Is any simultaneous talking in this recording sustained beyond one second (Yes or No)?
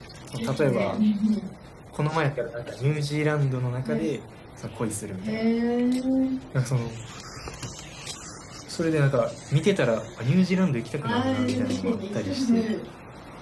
Yes